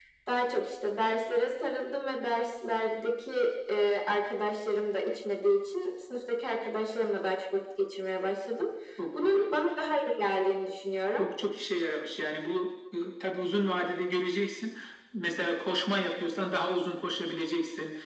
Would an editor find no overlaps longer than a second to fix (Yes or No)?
Yes